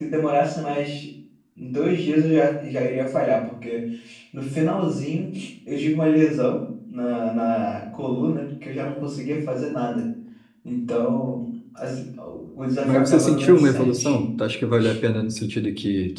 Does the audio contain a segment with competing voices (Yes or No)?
Yes